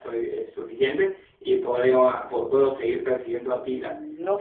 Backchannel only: No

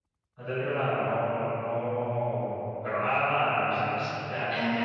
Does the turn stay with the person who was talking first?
No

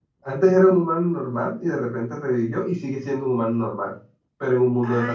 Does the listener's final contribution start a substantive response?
Yes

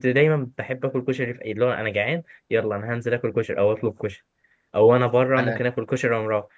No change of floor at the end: Yes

